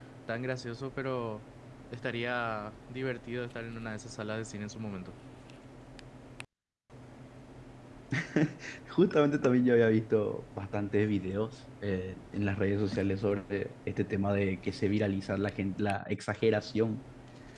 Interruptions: none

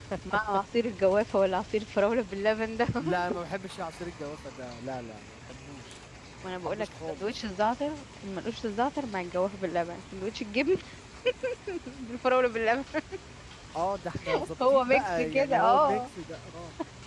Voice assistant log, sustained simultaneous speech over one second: present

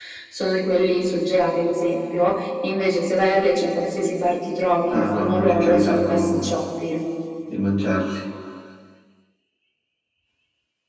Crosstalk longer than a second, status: present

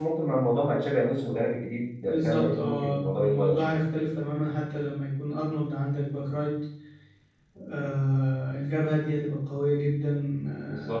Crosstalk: present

